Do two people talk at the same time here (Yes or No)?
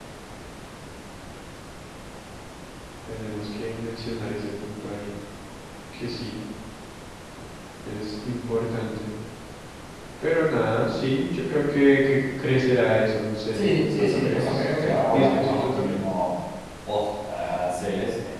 Yes